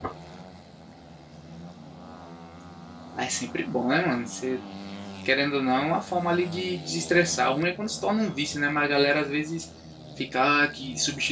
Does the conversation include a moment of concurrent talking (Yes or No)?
No